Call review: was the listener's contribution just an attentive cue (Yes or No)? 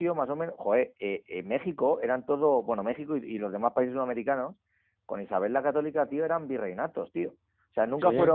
Yes